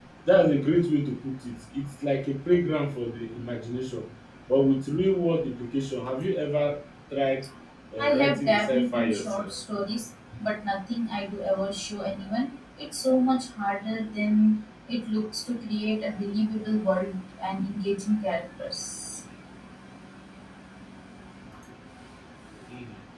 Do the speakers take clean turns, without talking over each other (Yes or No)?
No